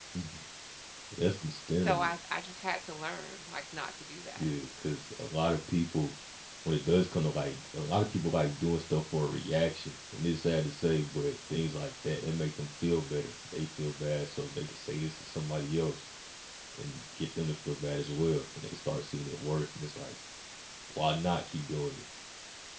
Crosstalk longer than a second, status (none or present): none